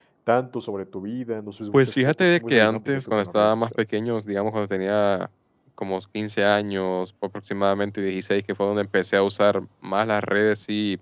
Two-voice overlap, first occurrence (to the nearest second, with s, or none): 2 s